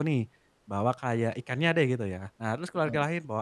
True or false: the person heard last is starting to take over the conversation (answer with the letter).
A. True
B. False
B